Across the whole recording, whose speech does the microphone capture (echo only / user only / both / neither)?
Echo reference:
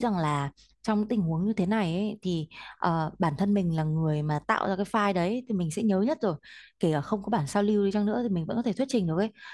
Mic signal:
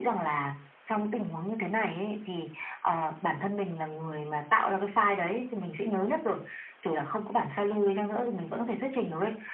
echo only